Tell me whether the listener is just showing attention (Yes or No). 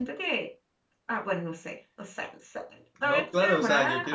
No